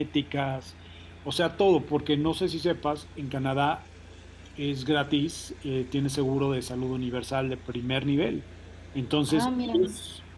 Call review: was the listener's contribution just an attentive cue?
Yes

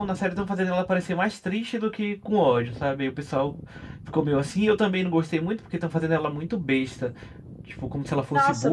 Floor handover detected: Yes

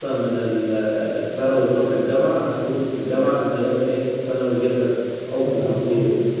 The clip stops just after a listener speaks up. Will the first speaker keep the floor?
Yes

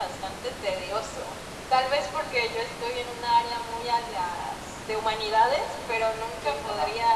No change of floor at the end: Yes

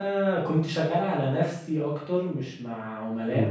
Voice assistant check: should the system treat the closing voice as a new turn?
Yes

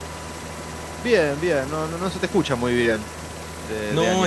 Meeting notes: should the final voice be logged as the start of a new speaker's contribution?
Yes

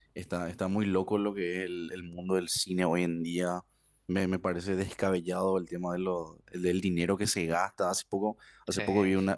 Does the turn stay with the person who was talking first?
Yes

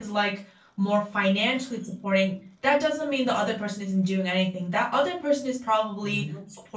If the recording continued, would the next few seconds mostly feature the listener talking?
No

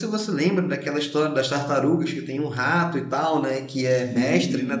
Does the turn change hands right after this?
No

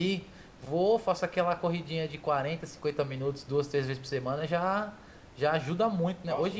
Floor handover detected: Yes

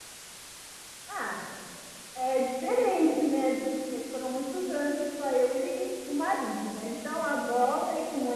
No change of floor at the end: Yes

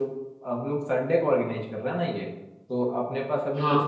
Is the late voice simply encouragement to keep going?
Yes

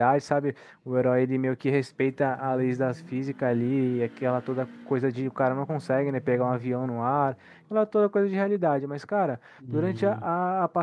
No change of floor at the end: Yes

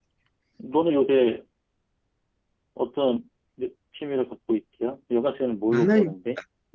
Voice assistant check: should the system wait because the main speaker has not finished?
No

